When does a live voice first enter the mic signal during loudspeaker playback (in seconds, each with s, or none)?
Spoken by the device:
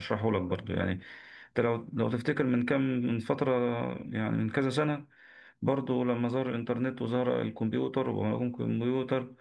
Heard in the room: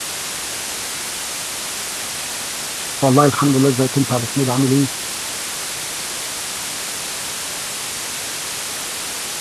3.0 s